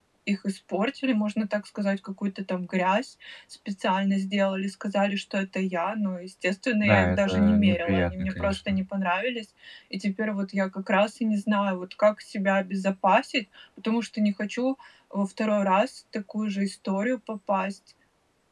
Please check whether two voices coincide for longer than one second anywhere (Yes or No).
Yes